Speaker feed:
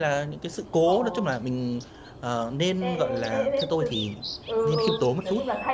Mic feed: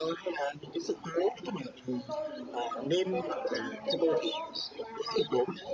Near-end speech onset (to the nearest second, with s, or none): 2 s